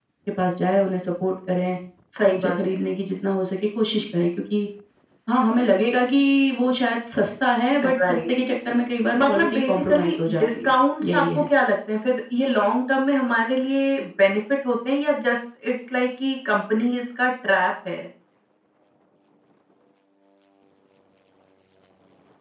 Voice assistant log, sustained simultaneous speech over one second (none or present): present